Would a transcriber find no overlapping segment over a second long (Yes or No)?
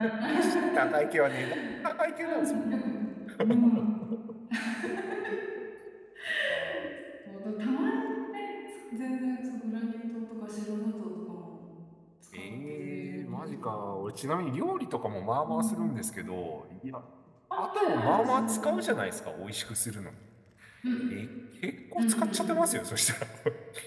No